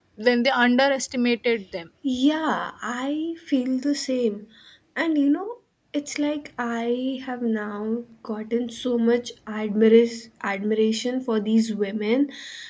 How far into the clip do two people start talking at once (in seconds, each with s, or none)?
none